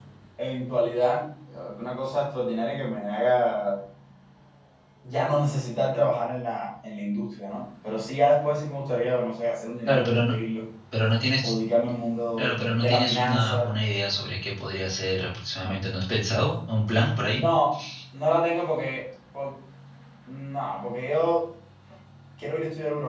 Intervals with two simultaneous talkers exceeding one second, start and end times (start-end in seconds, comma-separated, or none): 12.4-13.7